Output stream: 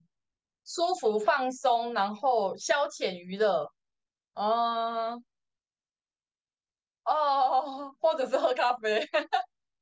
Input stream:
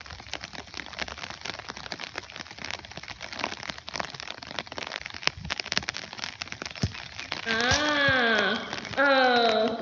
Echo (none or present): none